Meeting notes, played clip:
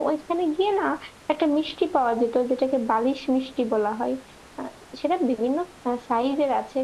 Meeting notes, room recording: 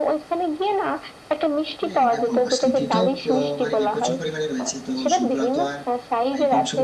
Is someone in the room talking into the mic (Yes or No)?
Yes